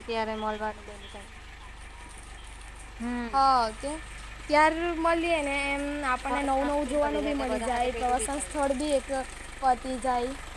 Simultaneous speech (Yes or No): Yes